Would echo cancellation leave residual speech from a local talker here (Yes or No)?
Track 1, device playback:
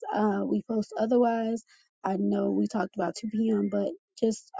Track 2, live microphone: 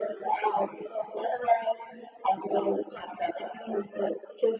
No